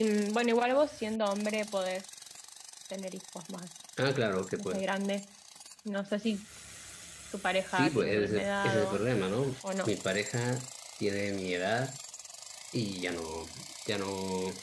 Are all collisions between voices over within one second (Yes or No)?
No